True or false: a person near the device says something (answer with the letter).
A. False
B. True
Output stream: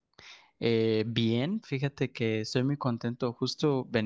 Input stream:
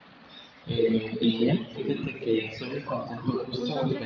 B